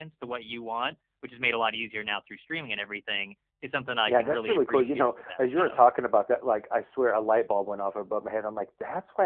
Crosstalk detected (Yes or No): Yes